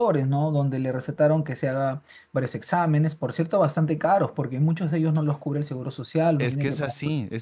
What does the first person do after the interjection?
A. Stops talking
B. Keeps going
A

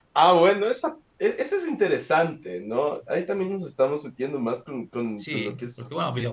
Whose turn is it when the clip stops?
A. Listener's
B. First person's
A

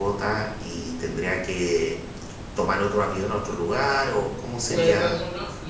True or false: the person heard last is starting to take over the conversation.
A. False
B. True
B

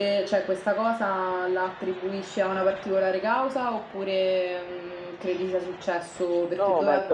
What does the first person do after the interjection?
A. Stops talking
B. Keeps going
A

